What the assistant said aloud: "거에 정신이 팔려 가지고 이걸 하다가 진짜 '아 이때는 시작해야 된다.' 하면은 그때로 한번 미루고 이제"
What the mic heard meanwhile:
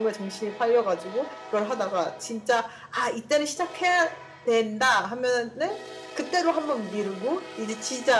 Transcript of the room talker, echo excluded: none

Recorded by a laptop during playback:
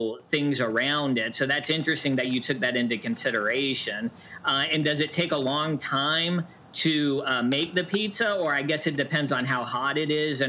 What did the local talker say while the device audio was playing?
none

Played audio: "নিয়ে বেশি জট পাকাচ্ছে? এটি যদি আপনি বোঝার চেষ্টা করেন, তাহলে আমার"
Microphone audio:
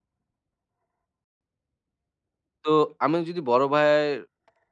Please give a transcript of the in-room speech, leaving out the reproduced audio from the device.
তো আমি যদি বড় ভাইয়ের

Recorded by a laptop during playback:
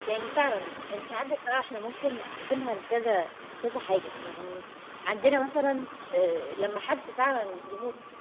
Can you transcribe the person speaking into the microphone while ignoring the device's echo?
none

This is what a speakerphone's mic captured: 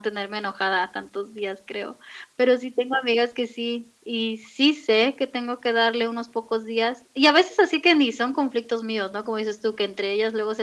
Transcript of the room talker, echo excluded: none

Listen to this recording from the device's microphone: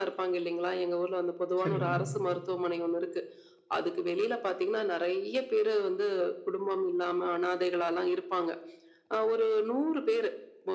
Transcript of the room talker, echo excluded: சரிங்க.

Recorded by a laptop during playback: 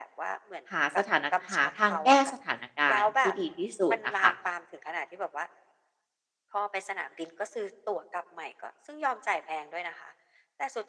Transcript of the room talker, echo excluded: หาสถานะหาทางแก้สถานการณ์ที่ดีที่สุดอะค่ะ

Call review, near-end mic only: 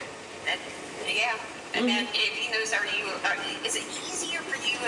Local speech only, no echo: Mhm.

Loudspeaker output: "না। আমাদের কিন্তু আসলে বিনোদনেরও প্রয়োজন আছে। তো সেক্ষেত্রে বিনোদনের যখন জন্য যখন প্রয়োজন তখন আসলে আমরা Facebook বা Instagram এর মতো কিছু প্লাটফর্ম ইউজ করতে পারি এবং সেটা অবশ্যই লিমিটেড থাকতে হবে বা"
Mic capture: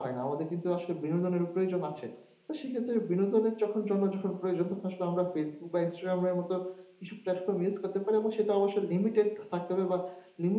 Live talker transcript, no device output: none

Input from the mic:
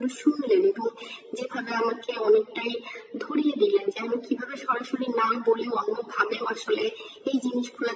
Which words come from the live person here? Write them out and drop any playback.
none

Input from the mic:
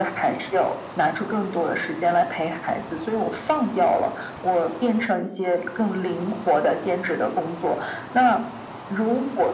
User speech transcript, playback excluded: none

